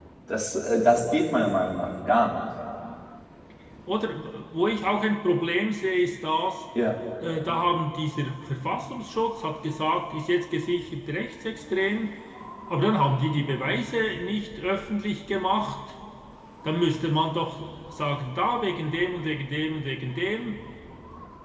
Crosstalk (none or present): none